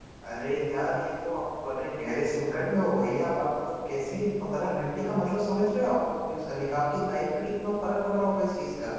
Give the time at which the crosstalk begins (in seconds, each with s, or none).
none